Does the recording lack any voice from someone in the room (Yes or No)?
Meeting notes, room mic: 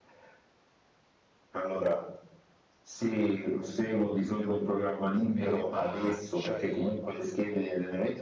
No